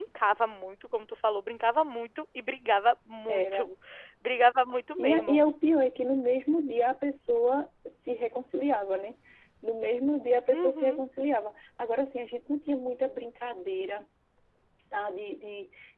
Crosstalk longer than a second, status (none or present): none